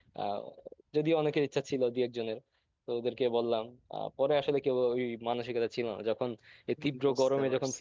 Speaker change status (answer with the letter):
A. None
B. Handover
A